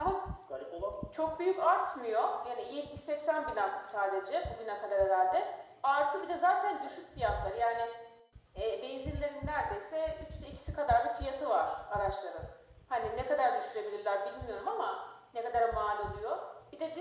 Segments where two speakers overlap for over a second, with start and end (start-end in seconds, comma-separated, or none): none